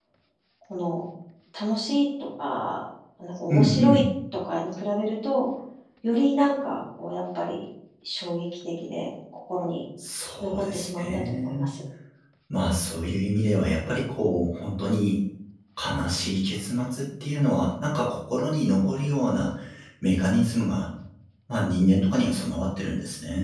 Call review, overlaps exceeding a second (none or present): present